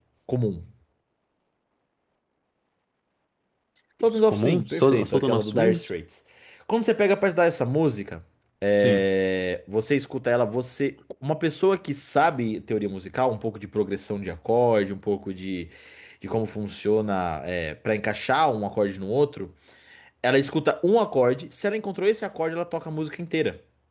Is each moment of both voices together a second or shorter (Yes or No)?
No